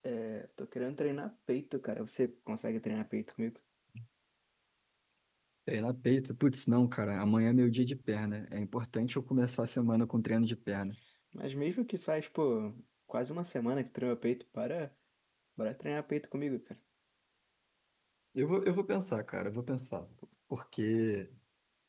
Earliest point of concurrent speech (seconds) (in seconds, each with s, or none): none